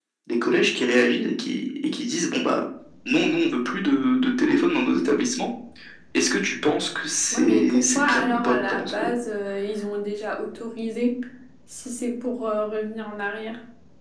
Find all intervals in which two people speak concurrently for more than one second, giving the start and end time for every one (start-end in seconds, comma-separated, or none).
7.3-9.1